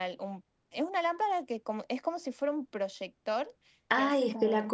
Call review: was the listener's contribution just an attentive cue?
No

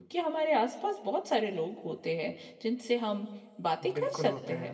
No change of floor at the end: No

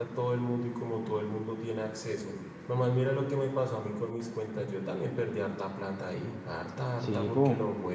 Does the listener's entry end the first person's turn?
No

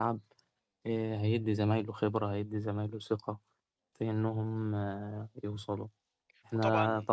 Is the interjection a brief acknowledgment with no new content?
Yes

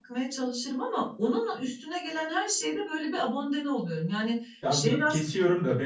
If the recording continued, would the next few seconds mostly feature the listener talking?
Yes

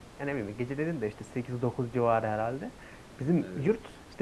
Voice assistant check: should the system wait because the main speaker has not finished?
Yes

